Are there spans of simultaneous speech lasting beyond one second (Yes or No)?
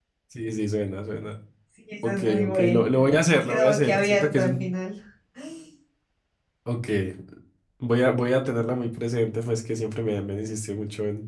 Yes